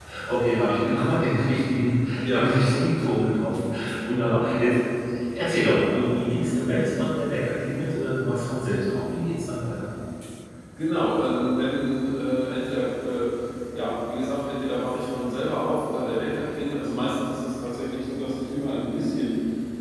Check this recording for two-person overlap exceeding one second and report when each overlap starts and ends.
none

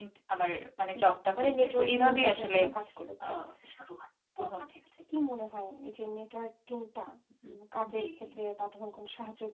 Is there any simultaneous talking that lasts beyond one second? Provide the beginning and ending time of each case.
1.0-2.6

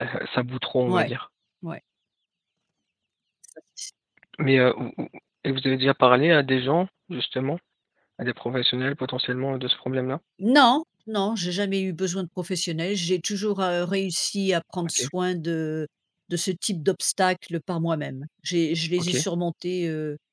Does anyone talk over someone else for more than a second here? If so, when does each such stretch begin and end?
none

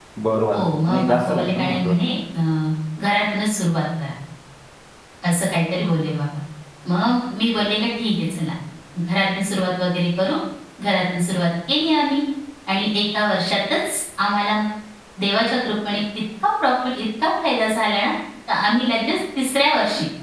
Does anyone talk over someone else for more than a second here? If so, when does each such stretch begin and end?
0.5-1.9

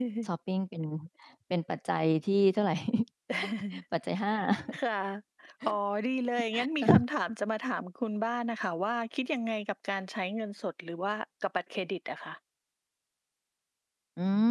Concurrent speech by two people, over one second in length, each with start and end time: none

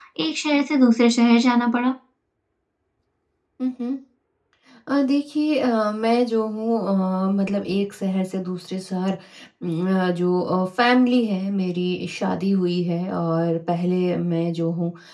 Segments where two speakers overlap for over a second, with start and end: none

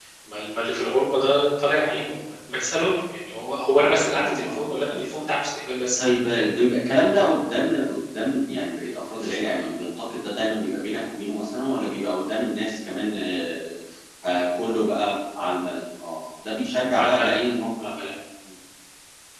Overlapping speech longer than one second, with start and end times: 3.8-5.2

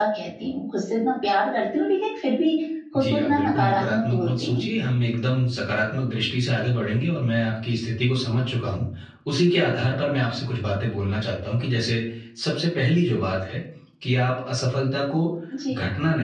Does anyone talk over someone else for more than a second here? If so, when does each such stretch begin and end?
3.0-4.6

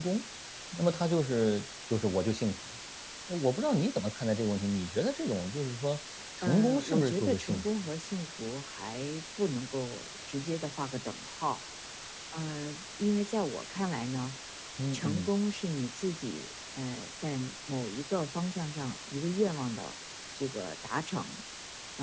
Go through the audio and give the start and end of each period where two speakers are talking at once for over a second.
6.4-7.7

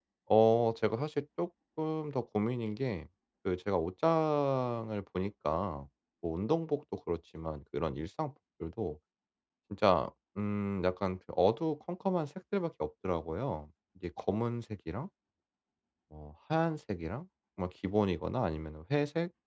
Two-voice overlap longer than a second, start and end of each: none

